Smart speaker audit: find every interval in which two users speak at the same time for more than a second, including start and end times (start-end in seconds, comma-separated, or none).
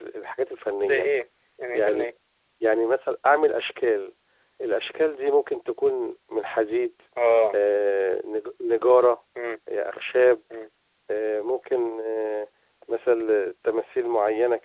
none